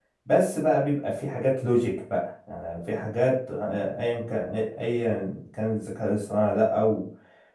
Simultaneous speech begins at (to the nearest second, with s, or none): none